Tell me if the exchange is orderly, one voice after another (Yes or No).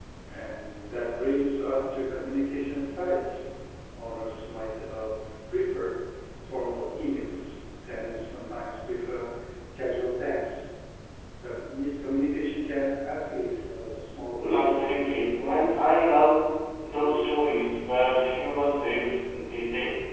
No